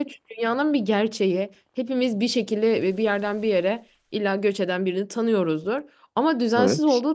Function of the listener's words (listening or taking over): listening